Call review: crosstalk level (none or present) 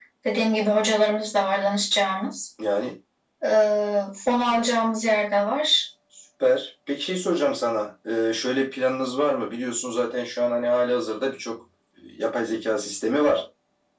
none